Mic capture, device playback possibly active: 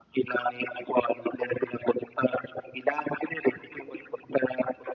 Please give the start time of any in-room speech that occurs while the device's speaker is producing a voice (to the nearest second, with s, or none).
none